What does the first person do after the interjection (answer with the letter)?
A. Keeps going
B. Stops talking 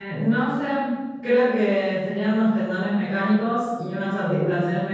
A